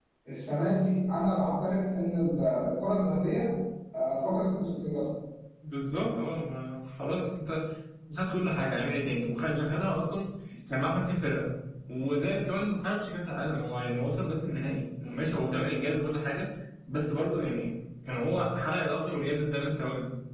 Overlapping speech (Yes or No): No